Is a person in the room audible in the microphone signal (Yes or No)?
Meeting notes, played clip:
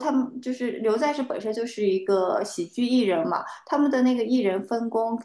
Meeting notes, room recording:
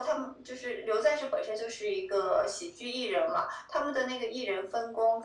No